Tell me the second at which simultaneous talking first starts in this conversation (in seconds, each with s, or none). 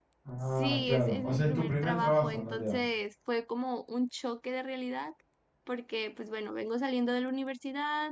0.6 s